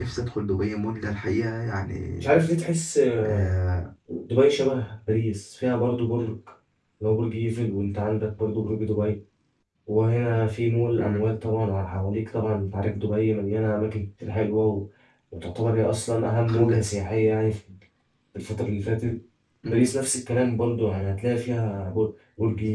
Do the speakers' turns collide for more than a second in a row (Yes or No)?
No